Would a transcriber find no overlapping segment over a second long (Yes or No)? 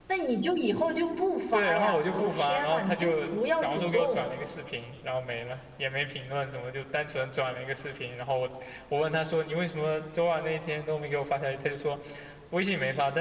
No